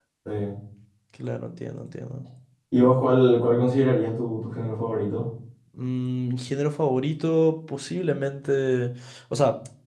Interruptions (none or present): none